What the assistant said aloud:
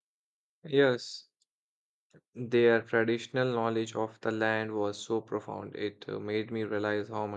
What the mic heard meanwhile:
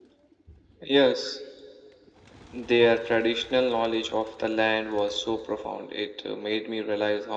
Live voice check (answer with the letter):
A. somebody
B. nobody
B